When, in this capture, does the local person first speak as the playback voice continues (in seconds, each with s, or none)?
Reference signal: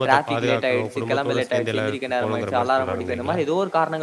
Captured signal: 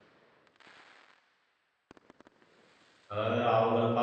3.1 s